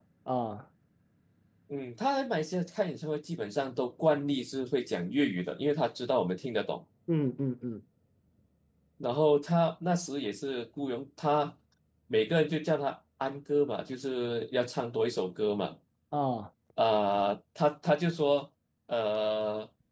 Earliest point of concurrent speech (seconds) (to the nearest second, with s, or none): none